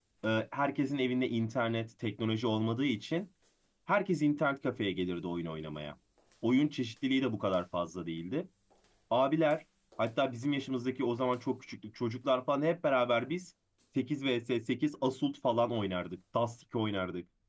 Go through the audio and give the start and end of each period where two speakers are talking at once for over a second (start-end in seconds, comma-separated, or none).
none